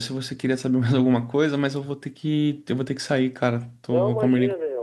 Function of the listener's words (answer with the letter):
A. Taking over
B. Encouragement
A